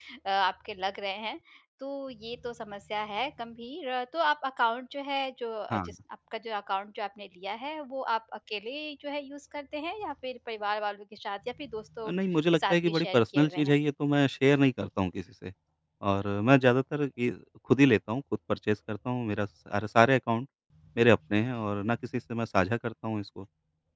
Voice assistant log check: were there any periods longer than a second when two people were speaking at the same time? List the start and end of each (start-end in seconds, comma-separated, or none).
12.5-13.7